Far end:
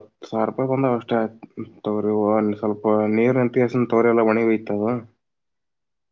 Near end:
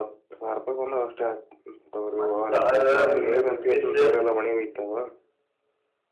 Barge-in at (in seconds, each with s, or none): 2.2 s